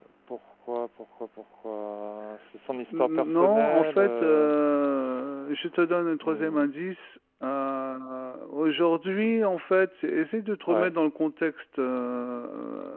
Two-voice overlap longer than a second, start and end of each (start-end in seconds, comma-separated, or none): 2.9-4.5